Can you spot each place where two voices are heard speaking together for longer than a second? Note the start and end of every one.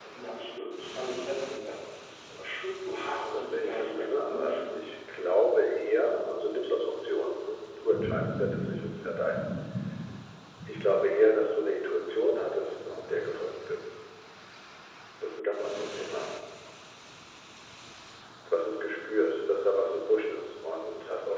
3.4-4.8

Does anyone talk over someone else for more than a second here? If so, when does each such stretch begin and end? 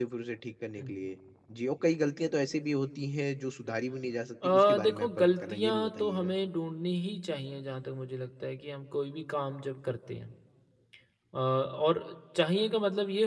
4.4-6.3

